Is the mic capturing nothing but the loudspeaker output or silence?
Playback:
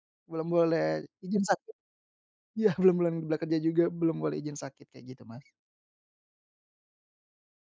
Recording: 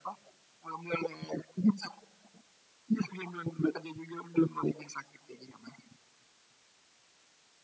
Yes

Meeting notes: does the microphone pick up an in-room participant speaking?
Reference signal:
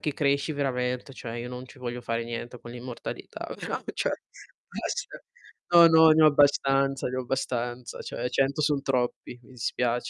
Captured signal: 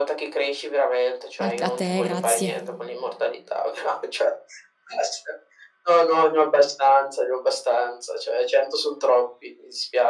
Yes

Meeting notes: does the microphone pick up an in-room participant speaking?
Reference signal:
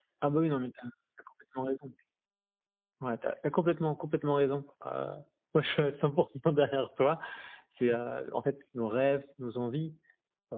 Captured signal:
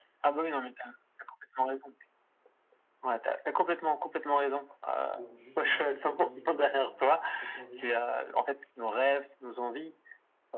Yes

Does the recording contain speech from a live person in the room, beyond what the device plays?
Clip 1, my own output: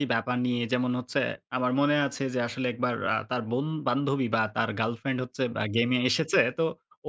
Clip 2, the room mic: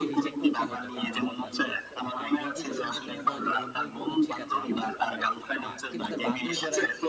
Yes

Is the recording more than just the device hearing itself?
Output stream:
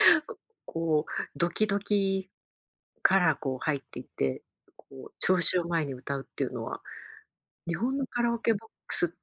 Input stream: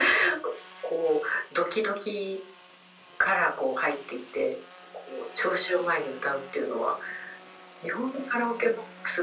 No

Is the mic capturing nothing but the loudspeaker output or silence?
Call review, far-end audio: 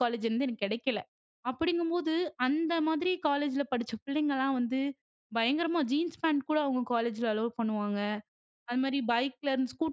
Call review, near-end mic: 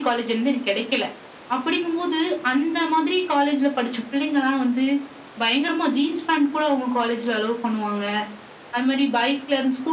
Yes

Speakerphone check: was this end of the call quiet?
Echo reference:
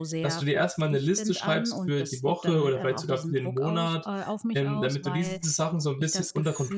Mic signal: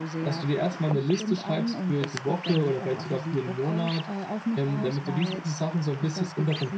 Yes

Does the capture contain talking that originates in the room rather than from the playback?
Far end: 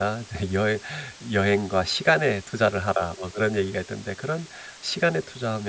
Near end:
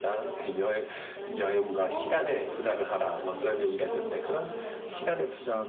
Yes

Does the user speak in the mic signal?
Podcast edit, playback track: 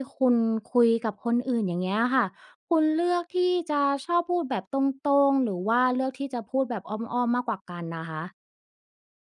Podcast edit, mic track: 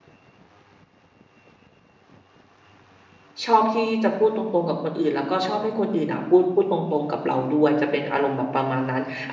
Yes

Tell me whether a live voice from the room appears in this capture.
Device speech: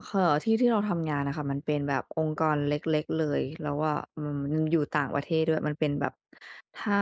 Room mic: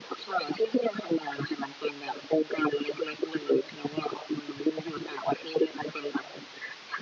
No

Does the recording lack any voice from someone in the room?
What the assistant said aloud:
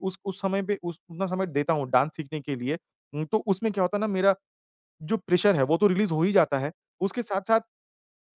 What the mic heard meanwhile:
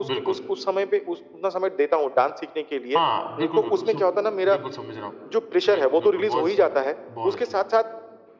No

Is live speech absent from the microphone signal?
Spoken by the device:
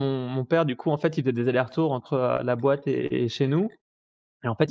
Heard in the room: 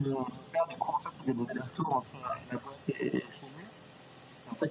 Yes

